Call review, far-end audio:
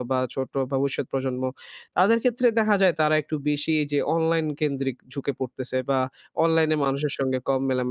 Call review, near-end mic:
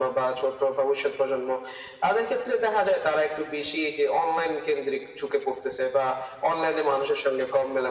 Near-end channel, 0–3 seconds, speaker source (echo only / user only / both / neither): echo only